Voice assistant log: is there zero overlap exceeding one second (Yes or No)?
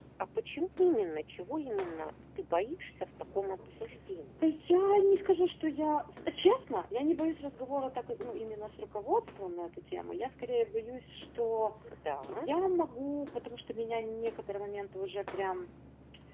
Yes